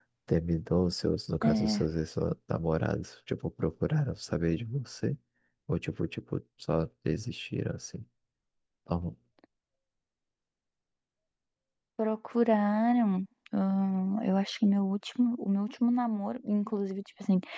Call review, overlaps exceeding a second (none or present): none